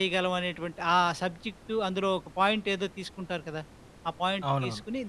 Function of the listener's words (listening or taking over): listening